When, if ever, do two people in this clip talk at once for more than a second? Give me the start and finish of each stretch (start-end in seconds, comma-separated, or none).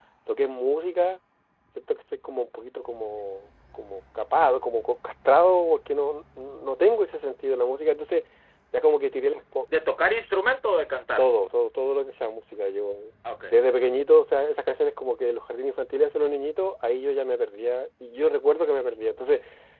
none